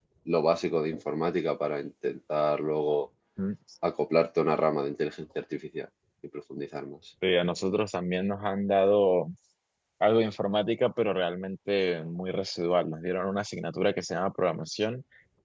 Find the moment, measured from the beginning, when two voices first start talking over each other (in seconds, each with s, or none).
none